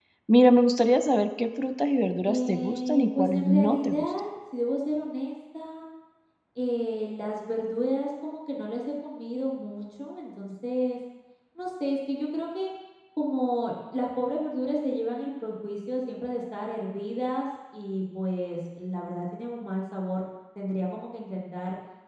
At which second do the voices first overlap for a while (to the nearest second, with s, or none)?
2 s